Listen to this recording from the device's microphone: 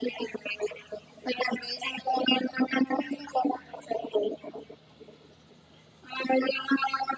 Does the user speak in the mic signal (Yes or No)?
No